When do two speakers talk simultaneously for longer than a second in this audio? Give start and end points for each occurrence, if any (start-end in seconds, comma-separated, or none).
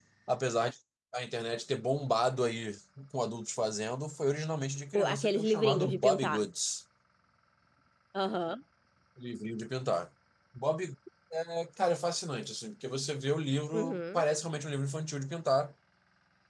5.0-6.4